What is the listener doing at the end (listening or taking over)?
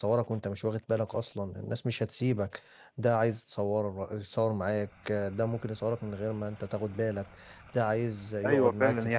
taking over